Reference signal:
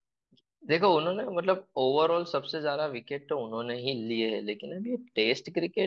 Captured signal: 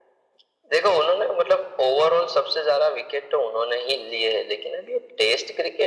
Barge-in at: none

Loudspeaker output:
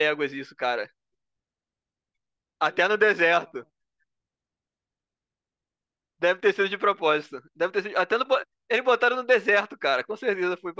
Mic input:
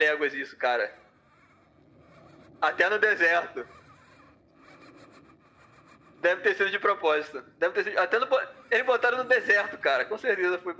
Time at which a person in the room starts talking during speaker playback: none

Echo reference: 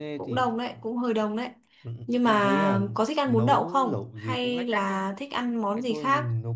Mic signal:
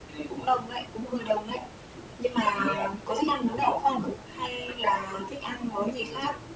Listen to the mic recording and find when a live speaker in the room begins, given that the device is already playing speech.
none

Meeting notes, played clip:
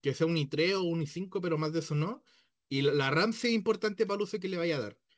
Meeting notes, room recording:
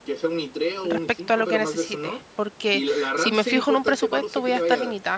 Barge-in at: 0.8 s

